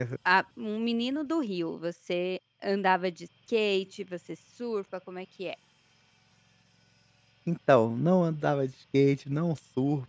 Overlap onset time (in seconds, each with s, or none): none